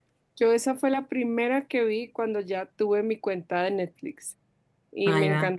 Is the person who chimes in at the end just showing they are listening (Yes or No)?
Yes